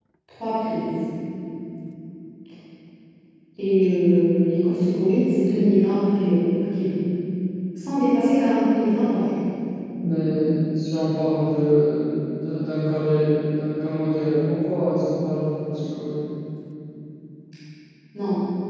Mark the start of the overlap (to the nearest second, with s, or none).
none